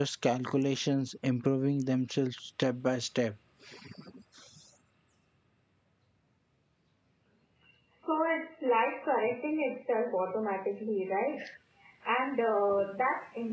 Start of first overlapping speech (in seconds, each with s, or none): none